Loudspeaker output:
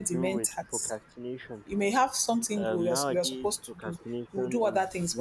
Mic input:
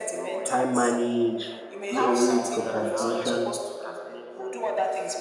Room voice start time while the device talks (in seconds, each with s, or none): 0.5 s